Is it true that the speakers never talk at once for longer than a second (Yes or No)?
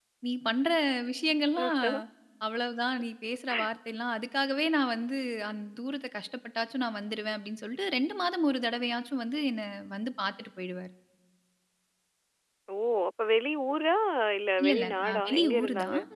No